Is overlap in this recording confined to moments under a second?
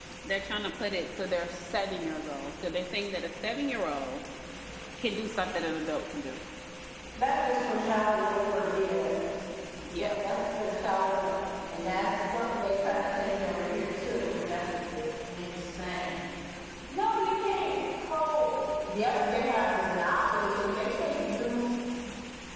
Yes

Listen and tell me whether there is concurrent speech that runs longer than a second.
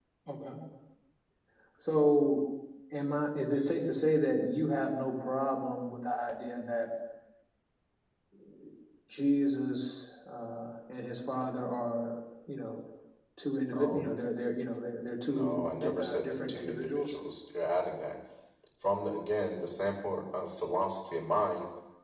Yes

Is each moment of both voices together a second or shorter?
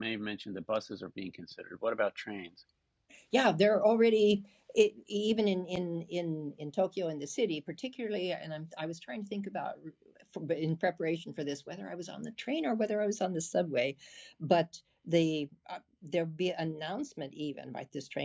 Yes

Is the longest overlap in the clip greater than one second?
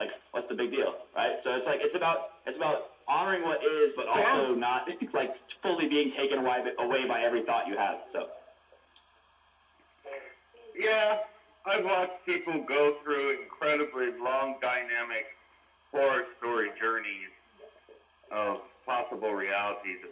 No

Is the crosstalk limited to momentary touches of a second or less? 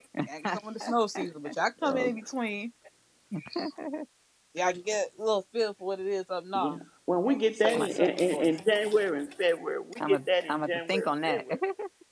No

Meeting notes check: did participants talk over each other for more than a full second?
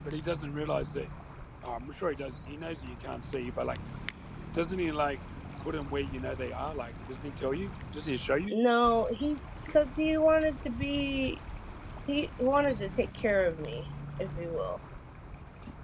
No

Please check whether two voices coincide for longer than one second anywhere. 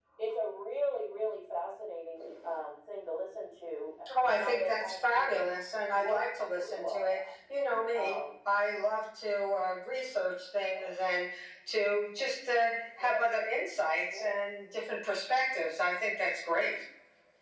Yes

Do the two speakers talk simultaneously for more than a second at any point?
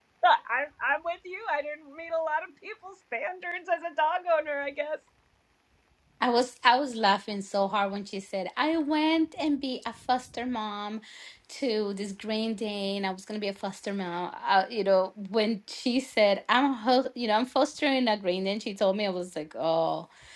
No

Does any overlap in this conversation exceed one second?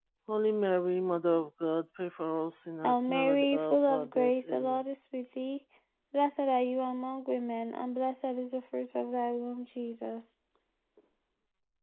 Yes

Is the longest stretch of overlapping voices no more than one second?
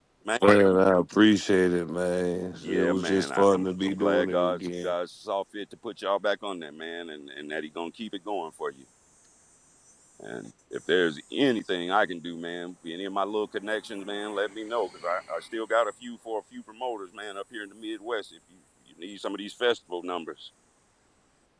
No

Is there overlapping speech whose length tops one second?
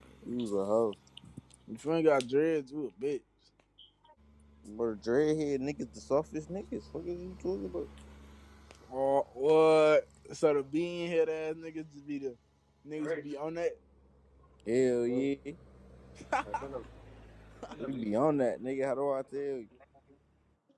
No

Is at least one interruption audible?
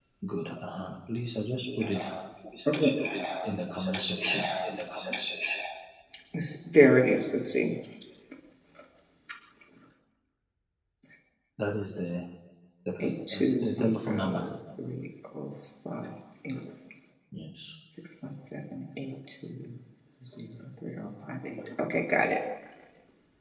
Yes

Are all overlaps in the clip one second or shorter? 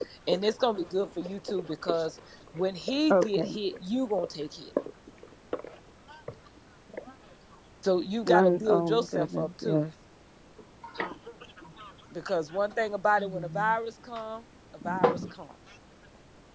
No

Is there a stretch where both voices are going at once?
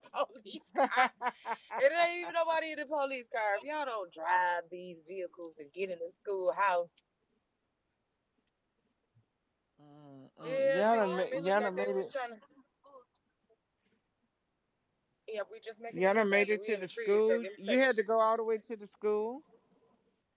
Yes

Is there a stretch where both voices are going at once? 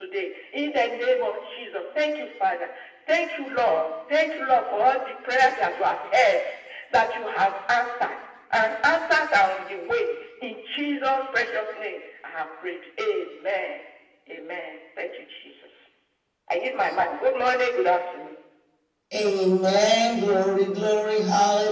No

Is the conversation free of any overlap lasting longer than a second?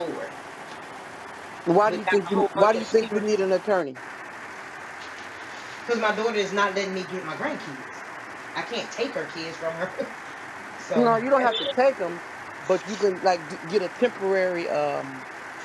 No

